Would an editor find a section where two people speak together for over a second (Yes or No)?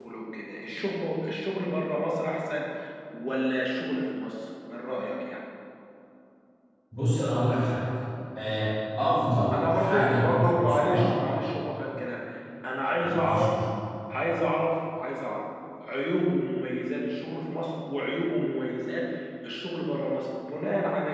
Yes